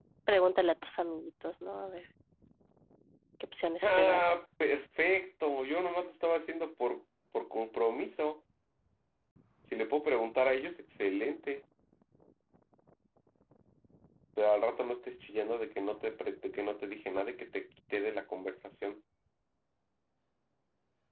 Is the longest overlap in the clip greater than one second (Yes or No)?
No